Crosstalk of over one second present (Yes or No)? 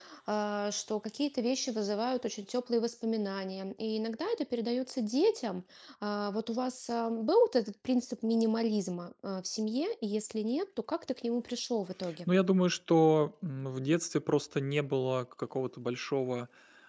No